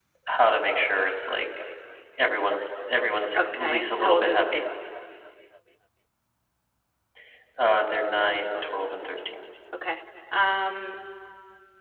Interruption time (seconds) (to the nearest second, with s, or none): 3 s